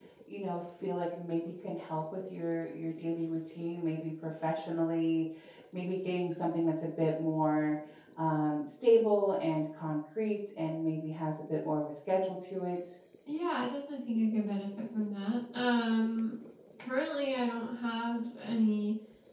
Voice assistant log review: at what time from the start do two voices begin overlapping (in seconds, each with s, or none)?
none